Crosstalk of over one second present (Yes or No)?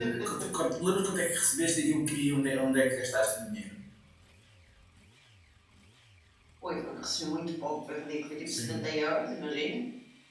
No